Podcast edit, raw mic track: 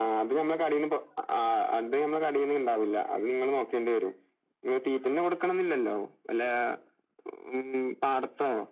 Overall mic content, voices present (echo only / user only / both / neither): echo only